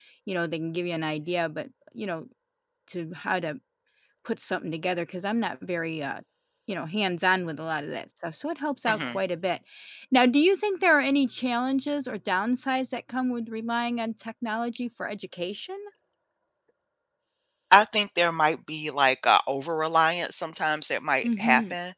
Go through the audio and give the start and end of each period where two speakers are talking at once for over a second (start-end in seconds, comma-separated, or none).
none